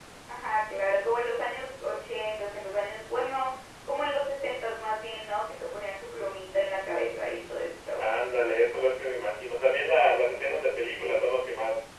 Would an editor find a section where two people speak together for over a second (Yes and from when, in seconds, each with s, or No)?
No